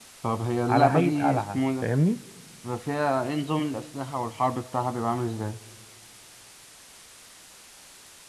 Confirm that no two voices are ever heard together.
No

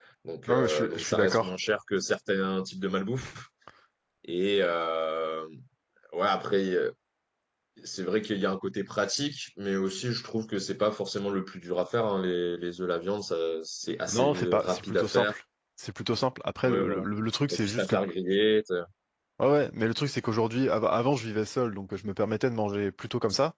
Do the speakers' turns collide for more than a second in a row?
Yes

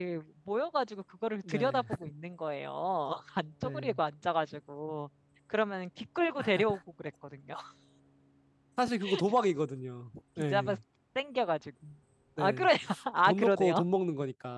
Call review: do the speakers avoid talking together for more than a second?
Yes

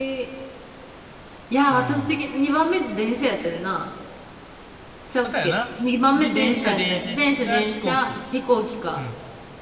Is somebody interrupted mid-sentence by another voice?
Yes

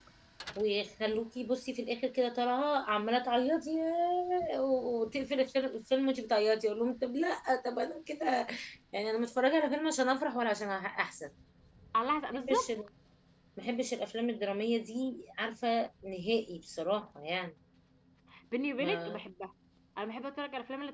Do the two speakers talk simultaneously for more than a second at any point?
No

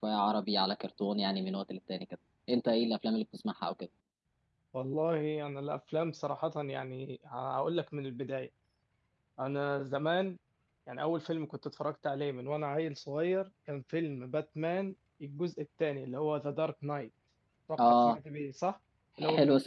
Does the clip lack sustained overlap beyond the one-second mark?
Yes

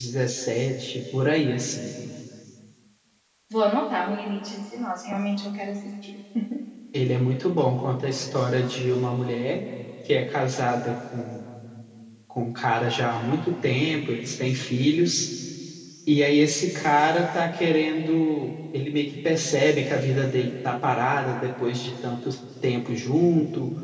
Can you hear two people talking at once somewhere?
No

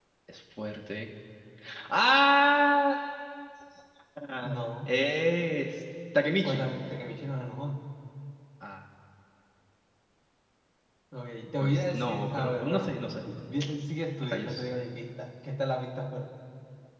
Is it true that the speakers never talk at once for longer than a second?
No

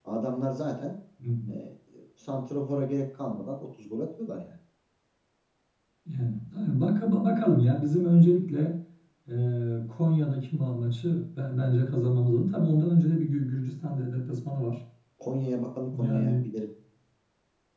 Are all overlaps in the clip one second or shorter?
Yes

